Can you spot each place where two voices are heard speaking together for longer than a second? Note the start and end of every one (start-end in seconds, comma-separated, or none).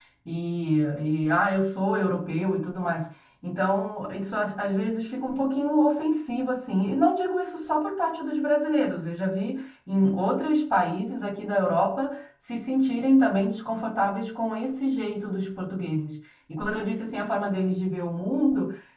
none